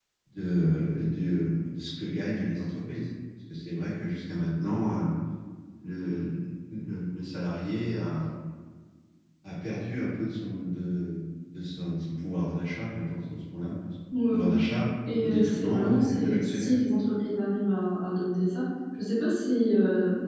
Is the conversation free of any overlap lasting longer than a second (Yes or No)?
No